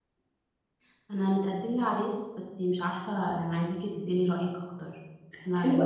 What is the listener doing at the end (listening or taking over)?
taking over